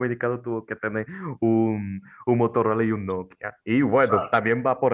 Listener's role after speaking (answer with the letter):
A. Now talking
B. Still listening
B